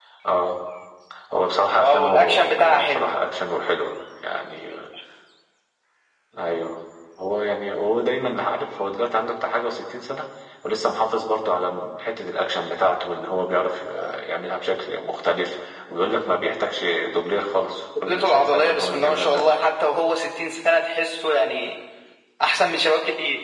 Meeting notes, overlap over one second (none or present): present